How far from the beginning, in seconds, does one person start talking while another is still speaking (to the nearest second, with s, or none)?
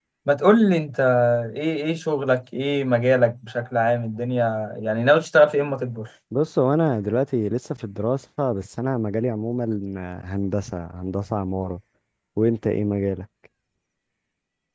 none